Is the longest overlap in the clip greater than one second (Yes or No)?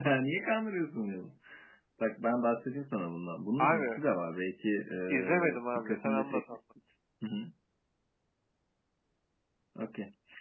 Yes